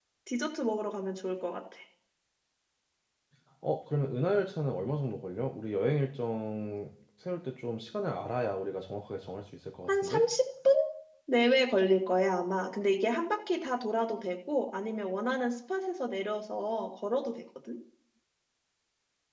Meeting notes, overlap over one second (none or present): none